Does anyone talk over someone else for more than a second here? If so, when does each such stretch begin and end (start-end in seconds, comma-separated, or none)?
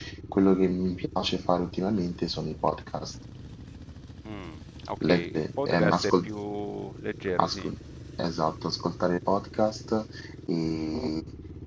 5.1-6.3